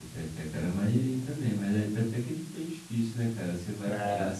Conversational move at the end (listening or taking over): listening